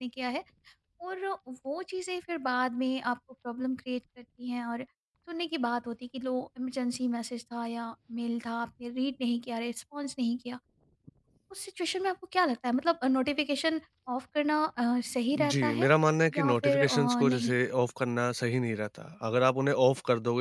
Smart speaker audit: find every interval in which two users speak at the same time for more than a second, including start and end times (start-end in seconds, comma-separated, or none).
16.3-17.5